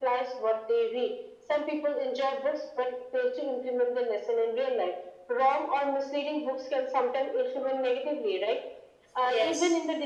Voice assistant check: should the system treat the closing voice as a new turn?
No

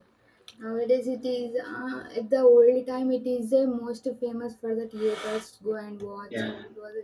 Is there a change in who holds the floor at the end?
No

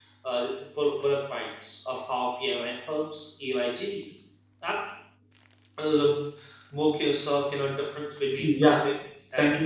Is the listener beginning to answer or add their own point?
Yes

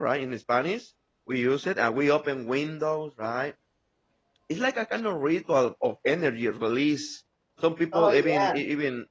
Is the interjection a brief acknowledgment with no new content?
Yes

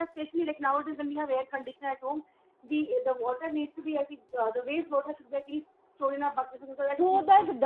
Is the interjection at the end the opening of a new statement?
Yes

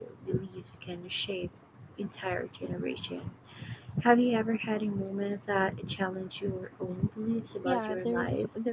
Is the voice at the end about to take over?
Yes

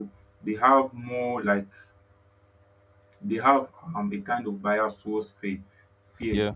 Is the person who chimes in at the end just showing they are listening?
Yes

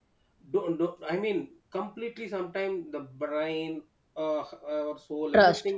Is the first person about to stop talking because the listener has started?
No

